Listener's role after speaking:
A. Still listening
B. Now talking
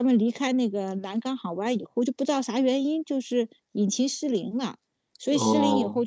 A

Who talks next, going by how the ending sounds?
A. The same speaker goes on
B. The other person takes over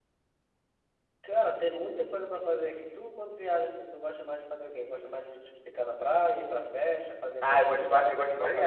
B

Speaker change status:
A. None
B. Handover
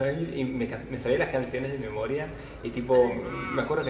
A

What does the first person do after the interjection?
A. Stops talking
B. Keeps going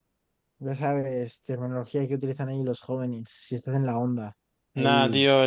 A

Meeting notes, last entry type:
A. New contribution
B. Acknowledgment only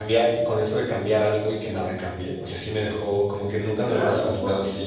A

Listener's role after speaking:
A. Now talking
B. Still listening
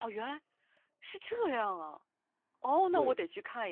B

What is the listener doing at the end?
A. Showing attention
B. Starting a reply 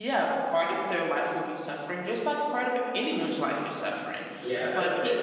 B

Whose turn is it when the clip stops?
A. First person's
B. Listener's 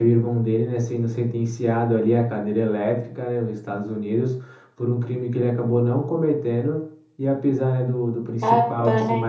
A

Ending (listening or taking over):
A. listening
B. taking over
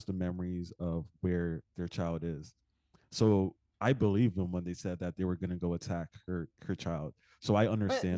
B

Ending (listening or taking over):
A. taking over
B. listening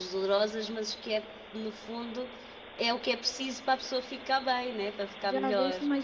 A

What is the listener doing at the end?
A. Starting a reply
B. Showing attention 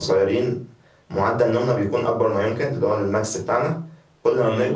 B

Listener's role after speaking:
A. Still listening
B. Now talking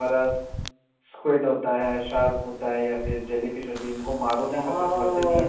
B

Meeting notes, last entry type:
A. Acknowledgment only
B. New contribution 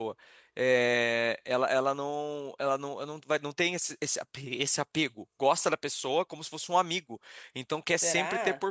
A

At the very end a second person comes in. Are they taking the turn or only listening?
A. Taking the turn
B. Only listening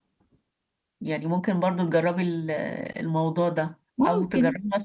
B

